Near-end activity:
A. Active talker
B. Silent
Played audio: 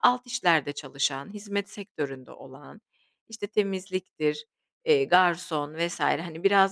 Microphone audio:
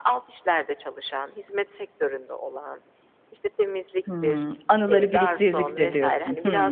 A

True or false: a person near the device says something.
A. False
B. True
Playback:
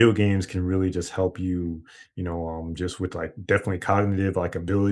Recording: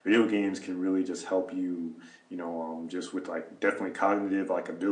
A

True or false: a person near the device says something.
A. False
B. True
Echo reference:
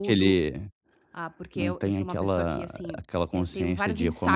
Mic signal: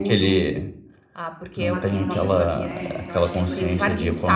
B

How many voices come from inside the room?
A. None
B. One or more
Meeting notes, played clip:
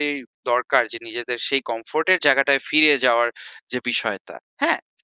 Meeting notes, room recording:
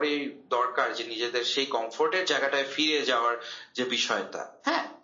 A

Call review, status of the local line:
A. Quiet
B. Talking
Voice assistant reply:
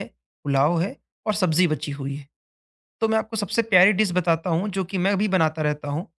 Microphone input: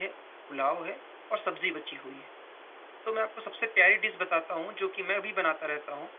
A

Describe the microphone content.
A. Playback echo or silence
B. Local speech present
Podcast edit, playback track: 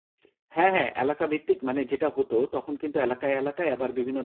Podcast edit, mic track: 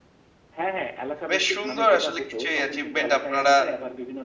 B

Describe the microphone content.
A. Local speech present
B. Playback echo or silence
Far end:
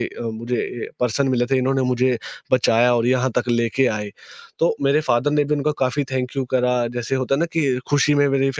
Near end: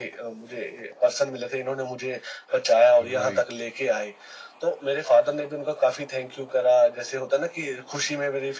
A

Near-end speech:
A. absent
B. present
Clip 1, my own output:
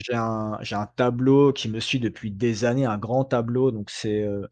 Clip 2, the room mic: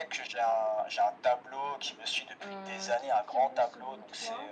B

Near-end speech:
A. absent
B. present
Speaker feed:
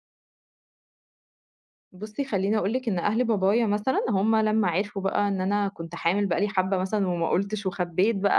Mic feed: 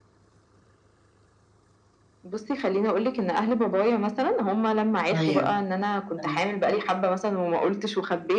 B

